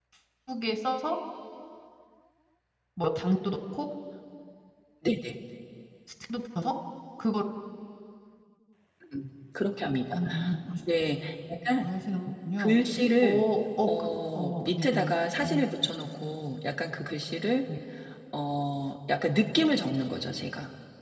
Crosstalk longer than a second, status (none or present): present